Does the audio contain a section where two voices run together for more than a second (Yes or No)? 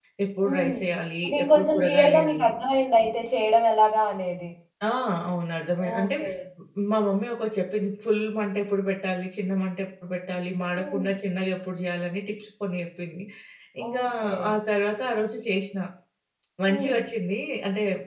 Yes